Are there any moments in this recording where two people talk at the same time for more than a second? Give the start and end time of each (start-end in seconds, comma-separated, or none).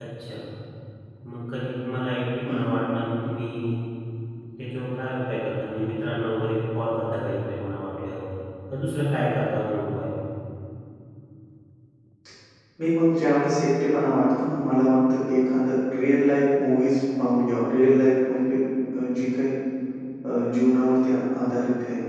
none